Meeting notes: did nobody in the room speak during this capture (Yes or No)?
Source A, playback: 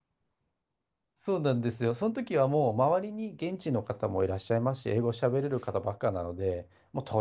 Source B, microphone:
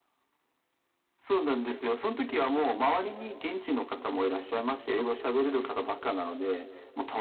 Yes